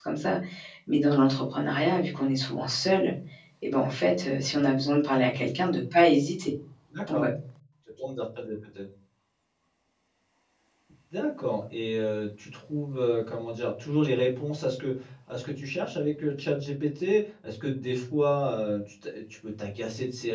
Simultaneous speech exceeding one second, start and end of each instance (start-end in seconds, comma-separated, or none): none